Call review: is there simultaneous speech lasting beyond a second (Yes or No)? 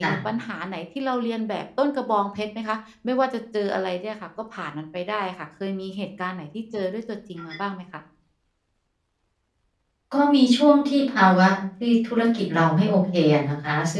No